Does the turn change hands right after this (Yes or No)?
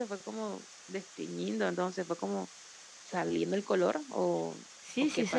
Yes